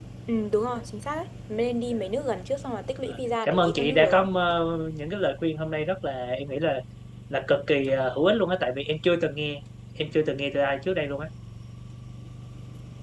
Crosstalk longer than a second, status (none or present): present